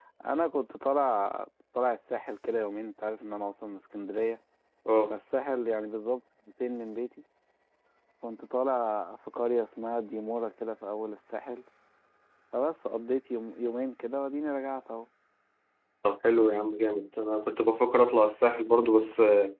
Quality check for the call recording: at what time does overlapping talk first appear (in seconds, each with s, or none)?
none